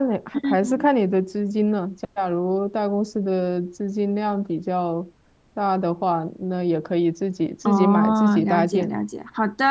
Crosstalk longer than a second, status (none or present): present